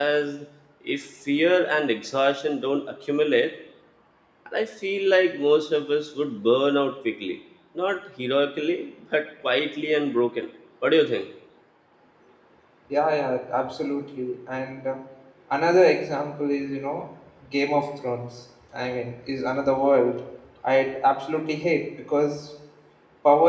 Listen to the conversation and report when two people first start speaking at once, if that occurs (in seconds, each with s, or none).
none